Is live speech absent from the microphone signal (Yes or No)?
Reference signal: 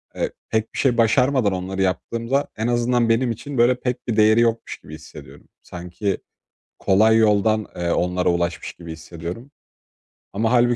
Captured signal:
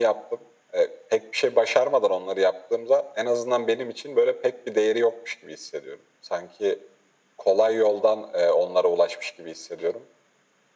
Yes